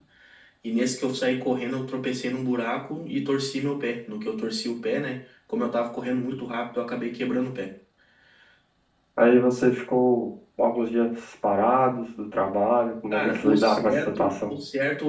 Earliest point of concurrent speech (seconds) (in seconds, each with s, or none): 13.1 s